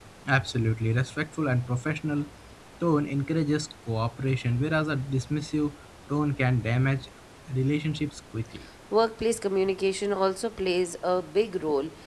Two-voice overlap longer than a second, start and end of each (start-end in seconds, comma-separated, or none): none